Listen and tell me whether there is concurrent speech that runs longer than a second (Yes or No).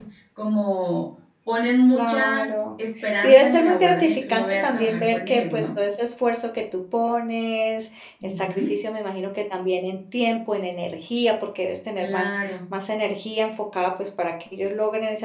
Yes